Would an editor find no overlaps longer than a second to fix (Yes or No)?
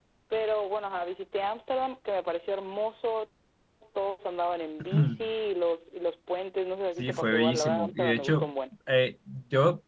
No